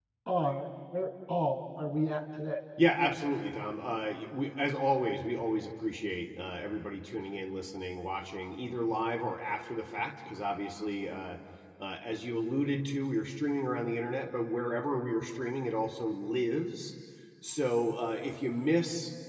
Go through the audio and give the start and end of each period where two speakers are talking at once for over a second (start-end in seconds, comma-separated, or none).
none